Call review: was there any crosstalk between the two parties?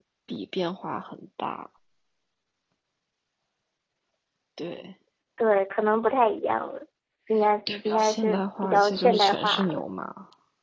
Yes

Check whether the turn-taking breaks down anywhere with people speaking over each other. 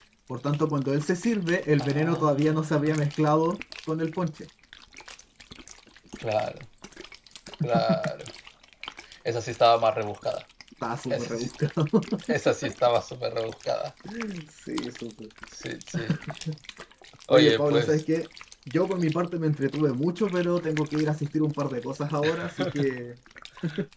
Yes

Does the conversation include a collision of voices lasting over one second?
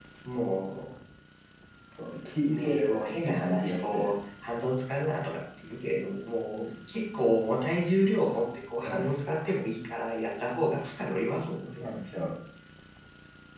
Yes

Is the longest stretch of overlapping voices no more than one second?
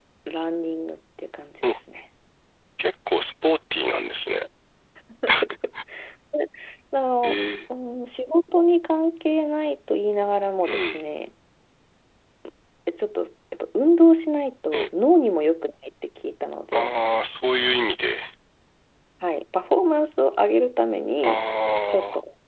Yes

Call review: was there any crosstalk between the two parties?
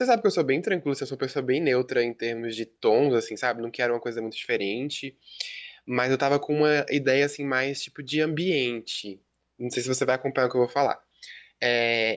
No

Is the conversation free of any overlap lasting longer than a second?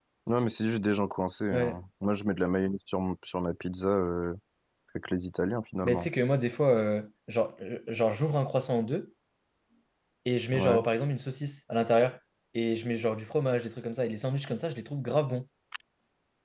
Yes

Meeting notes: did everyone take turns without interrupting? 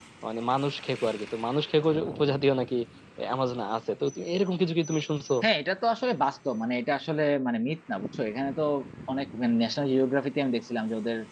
Yes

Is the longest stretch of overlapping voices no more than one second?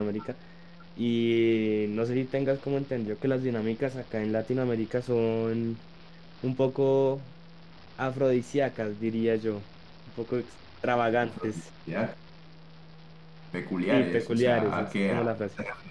No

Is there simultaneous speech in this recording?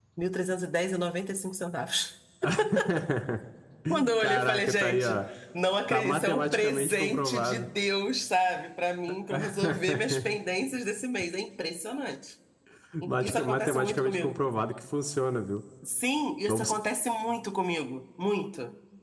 Yes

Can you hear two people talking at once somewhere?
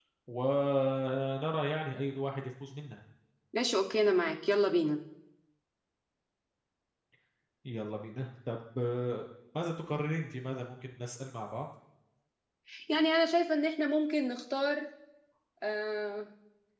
No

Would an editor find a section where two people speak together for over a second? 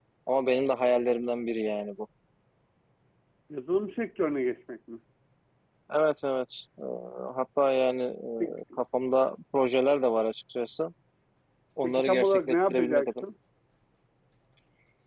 Yes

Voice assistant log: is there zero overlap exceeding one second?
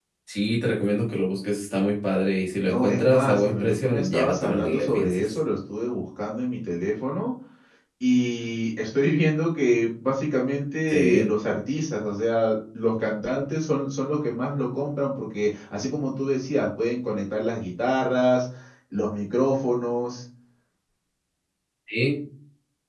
No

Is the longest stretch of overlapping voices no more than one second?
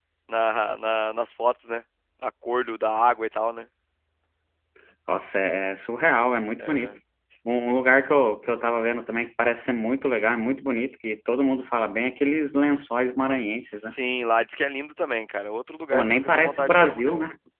No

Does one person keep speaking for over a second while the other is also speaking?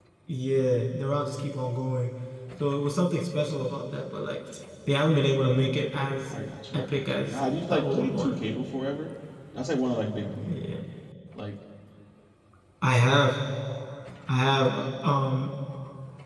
Yes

